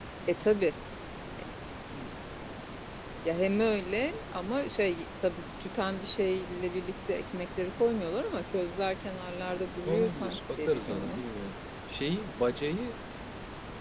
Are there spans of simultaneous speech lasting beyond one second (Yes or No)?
Yes